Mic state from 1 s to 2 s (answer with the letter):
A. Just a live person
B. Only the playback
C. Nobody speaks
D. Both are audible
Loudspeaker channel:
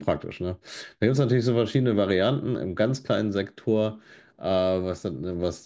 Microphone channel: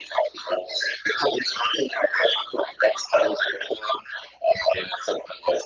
B